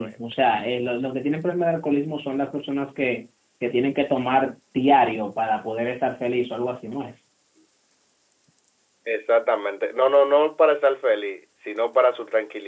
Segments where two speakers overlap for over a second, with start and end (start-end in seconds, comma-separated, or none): none